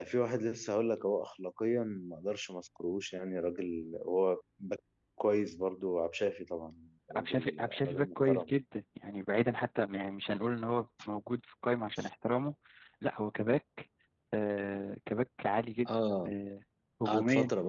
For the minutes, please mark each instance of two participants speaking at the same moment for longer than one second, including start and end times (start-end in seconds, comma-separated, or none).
7.2-8.5